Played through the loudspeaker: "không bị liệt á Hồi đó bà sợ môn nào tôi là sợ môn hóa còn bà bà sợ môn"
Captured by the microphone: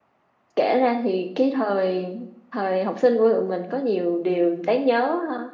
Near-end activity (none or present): present